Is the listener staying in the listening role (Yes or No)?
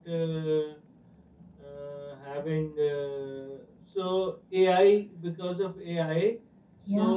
Yes